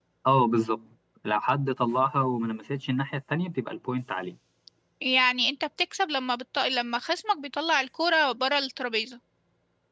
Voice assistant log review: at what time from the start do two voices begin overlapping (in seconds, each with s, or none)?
none